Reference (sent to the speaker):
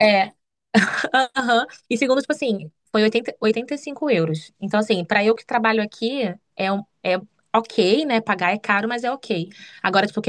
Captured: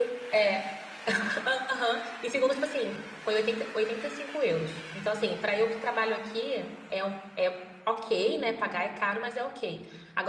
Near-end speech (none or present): none